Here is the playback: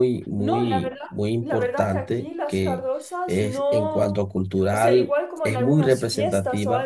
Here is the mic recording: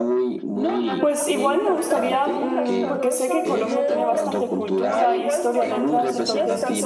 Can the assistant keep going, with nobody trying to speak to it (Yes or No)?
No